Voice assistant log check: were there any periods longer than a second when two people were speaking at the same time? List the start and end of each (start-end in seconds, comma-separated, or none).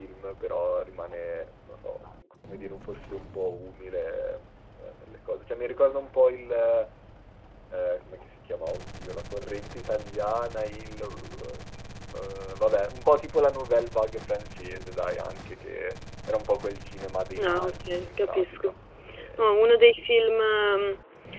17.4-18.7